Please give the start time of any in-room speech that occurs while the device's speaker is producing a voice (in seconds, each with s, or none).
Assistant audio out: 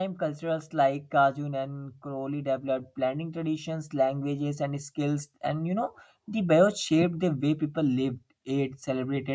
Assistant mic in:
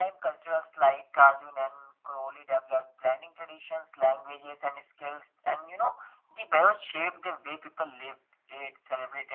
none